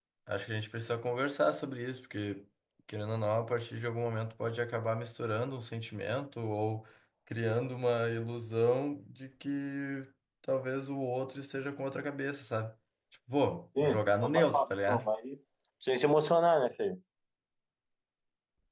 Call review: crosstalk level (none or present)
present